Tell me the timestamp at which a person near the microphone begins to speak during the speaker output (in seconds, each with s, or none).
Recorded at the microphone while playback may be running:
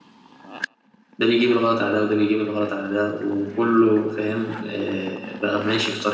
1.2 s